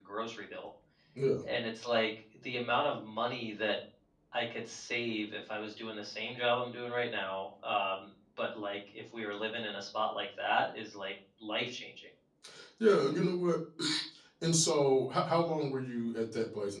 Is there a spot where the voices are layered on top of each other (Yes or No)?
No